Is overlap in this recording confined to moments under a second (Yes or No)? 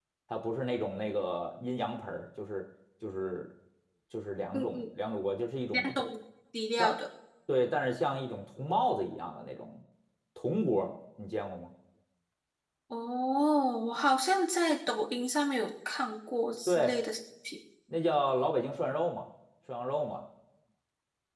Yes